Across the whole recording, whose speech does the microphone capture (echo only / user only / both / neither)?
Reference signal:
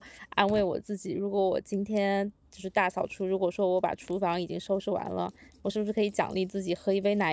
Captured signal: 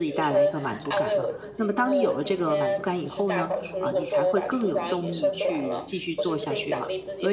both